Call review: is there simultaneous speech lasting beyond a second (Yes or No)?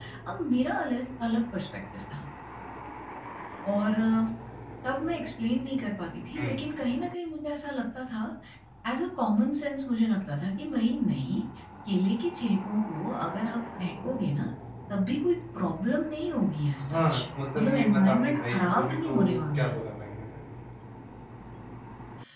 Yes